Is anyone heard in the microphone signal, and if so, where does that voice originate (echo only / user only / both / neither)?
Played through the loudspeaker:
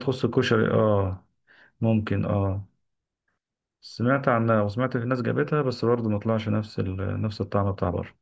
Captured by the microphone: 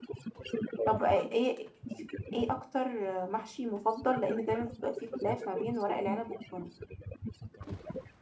both